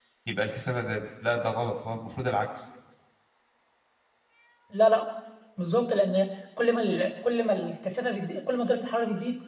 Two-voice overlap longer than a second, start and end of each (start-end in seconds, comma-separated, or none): none